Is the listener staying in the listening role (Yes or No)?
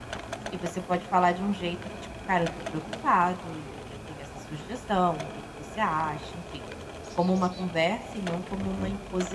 No